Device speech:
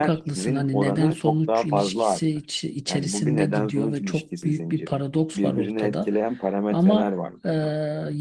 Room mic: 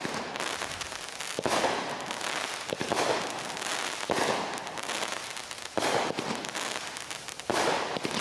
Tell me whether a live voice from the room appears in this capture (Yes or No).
No